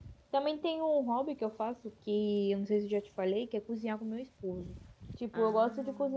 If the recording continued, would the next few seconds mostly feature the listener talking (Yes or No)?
No